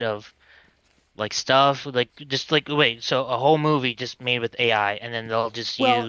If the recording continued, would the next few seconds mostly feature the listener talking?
Yes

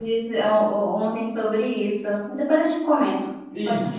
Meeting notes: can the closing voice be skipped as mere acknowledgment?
No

